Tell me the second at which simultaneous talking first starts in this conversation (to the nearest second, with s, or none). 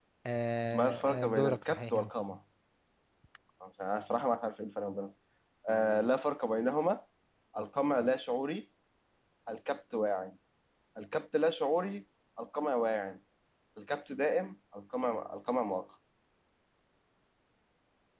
1 s